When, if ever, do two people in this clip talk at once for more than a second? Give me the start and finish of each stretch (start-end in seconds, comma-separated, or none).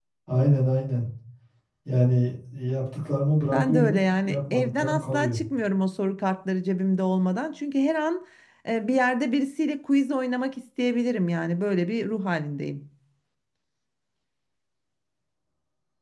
3.5-5.4